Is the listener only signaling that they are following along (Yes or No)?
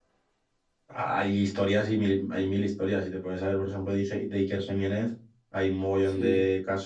Yes